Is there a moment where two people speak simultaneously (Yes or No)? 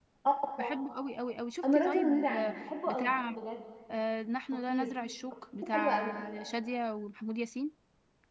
Yes